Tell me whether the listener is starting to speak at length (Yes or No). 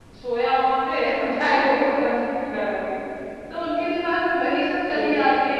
No